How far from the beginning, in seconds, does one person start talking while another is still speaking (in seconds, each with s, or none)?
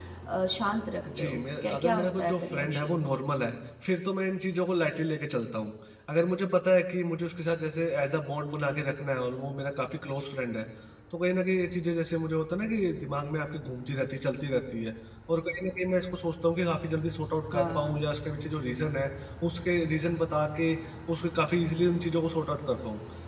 1.2 s